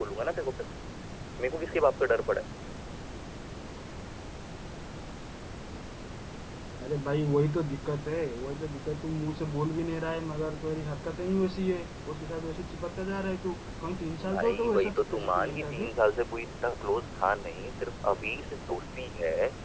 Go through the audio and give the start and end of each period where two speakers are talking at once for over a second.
14.3-15.9

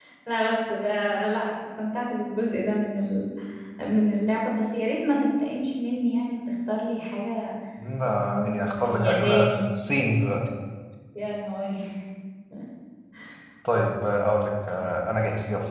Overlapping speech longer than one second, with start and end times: 8.1-9.6

